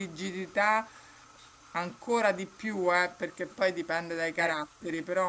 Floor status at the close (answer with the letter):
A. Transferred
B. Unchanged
B